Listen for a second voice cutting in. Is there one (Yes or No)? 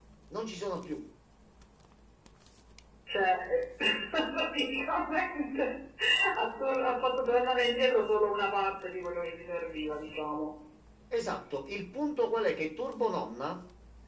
No